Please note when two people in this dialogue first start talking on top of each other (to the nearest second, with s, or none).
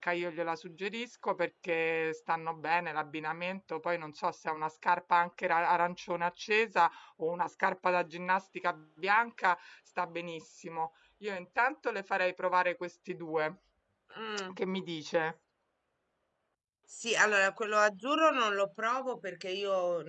none